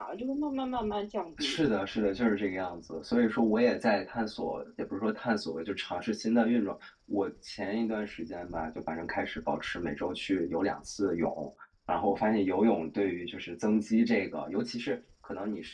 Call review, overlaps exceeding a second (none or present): none